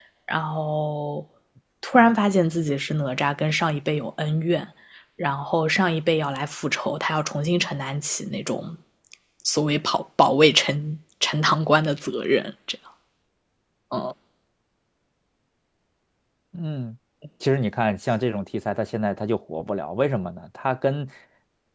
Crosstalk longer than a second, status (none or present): none